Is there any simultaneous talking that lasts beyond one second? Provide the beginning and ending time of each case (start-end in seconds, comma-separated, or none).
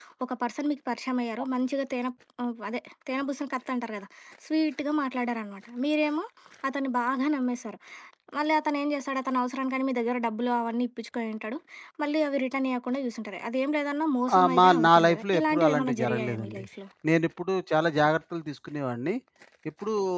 14.4-16.6